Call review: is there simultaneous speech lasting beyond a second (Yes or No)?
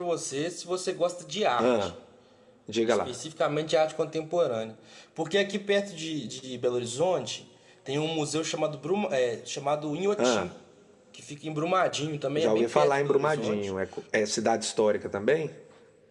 Yes